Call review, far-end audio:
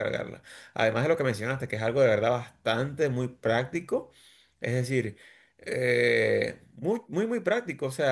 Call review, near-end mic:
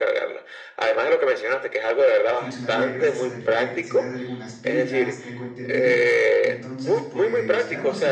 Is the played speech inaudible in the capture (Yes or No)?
No